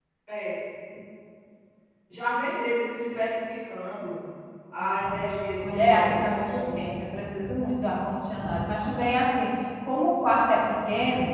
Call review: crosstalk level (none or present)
present